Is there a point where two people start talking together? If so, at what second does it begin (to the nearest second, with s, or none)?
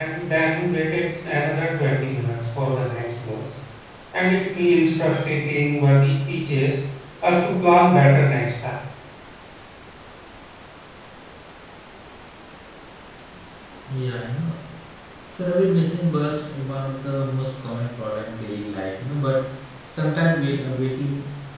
none